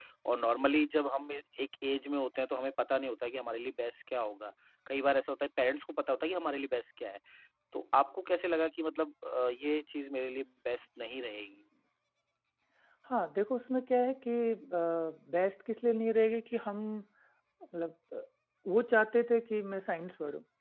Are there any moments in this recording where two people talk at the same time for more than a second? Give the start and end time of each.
none

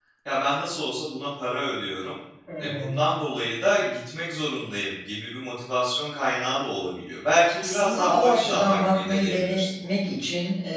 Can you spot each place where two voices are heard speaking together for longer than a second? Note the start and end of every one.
7.5-9.6

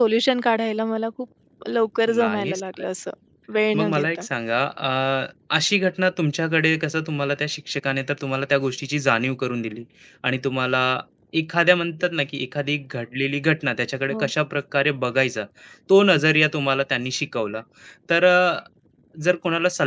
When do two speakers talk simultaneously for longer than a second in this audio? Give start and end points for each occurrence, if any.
none

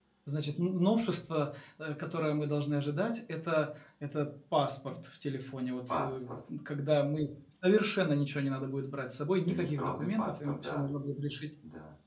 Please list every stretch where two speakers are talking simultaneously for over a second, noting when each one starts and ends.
9.5-10.9

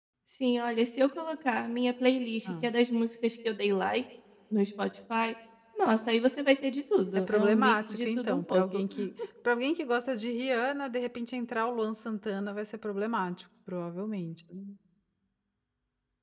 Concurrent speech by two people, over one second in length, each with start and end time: 7.3-8.8

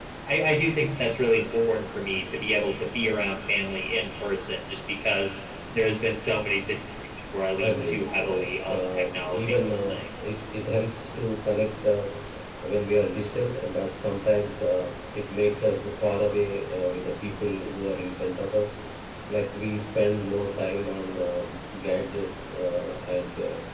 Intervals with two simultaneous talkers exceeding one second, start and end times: 7.6-10.4

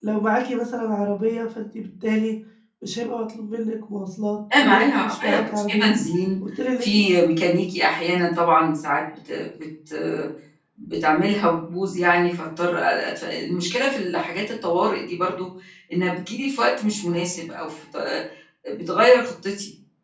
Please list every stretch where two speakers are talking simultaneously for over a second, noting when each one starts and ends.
4.6-6.0

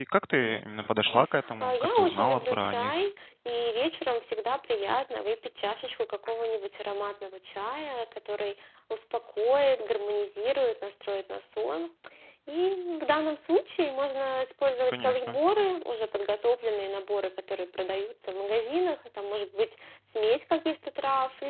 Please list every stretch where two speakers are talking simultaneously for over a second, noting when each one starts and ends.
1.6-3.0

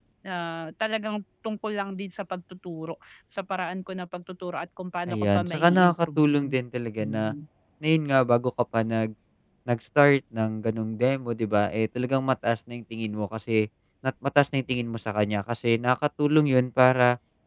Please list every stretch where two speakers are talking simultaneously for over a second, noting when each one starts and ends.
5.1-6.5

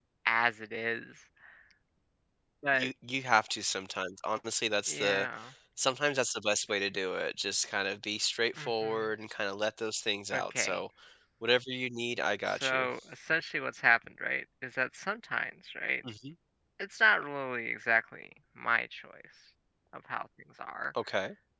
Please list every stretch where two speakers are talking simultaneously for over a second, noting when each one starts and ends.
none

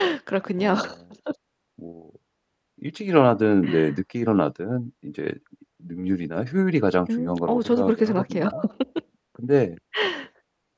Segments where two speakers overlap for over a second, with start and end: 7.2-8.5

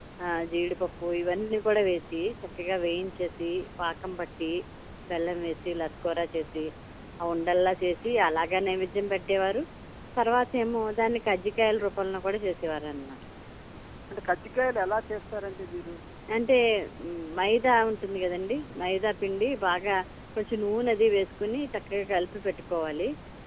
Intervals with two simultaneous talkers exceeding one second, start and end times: none

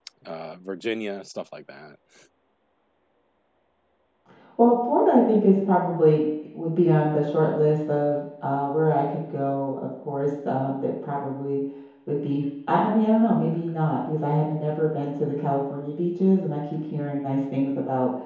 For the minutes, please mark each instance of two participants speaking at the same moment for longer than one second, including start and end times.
none

